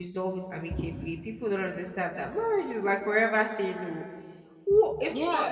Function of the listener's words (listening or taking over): taking over